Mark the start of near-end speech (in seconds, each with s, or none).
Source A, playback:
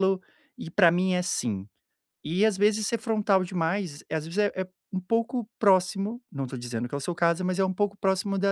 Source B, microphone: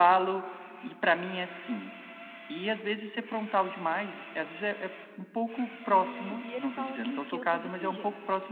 5.9 s